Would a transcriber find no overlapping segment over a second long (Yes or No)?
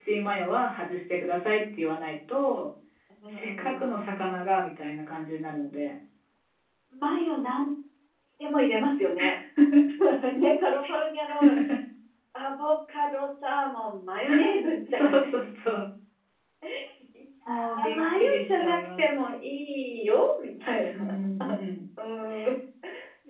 No